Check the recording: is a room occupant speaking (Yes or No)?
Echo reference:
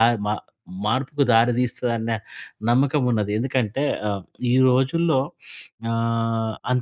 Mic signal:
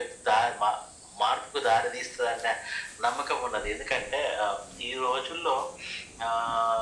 No